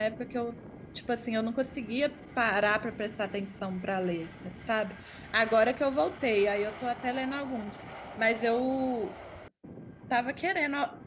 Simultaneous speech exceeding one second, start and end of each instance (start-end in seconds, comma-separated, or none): none